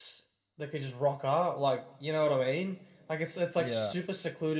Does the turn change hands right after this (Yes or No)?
No